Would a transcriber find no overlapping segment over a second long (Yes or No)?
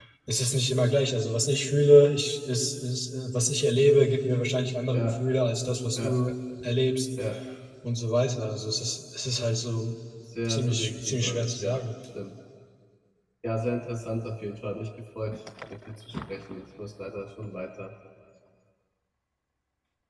No